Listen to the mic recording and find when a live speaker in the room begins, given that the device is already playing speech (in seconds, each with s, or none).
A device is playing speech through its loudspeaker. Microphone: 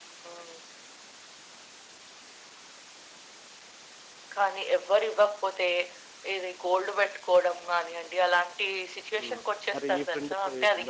9.2 s